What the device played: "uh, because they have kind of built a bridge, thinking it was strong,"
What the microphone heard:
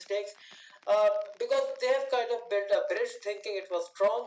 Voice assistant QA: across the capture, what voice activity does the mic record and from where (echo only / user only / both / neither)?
echo only